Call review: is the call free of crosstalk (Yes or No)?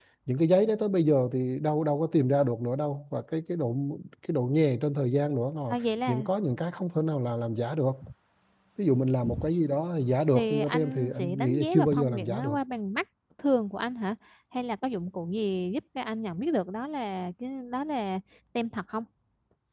No